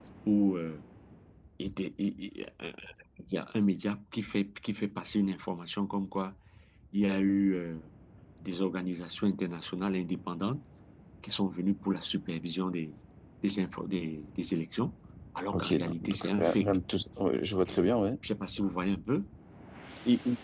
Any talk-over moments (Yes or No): Yes